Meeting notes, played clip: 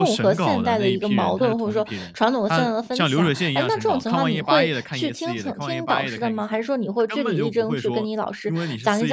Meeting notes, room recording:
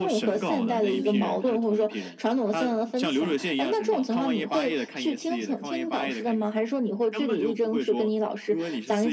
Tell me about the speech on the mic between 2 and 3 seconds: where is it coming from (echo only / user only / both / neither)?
echo only